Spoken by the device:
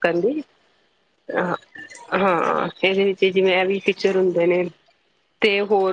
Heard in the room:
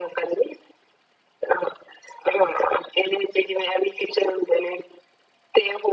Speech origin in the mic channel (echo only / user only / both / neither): echo only